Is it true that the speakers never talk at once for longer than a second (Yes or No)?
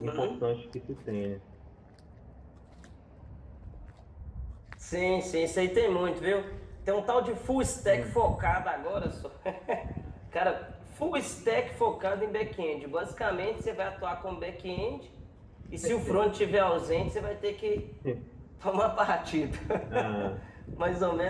Yes